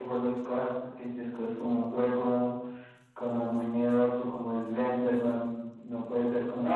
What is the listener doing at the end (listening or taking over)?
taking over